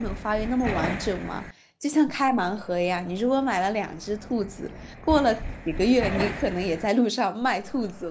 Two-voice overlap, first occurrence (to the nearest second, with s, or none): none